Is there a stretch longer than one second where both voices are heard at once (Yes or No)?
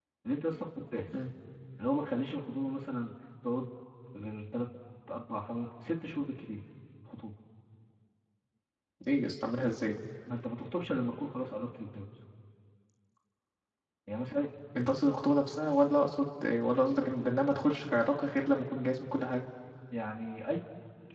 No